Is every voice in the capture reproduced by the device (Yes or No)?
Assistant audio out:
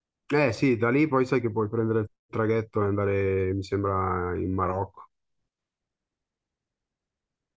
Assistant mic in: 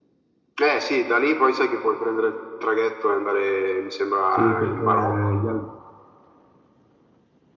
No